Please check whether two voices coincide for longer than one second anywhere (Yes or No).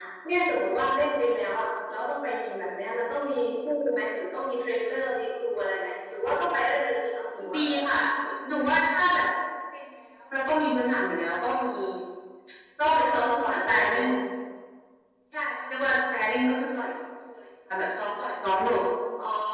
No